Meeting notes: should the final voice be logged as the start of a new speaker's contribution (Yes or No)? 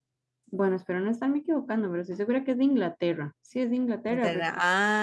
Yes